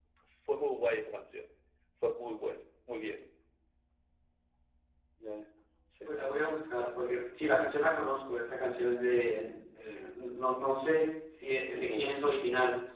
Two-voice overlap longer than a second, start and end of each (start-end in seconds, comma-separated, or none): none